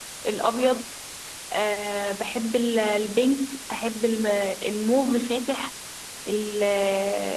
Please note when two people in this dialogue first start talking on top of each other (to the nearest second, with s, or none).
none